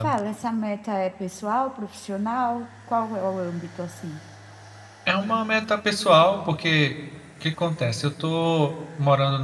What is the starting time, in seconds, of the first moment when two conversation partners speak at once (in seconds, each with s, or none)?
none